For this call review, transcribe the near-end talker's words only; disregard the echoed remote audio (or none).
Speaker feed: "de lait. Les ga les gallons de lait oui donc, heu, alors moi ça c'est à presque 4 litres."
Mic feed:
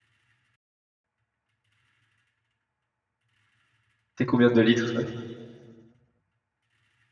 C'est combien de litres ça?